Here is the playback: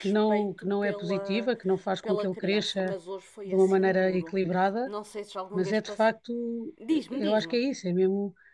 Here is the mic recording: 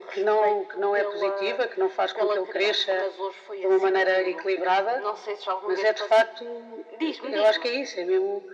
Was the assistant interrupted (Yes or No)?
No